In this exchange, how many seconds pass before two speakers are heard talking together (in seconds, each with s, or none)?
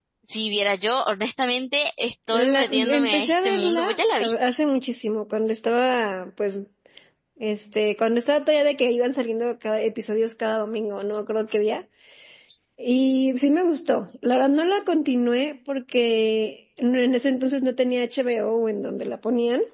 2.3 s